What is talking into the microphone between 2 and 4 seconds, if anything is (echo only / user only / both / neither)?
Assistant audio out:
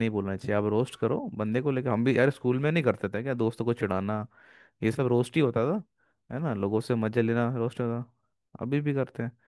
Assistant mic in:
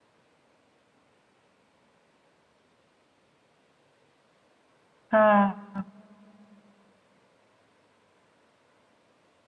neither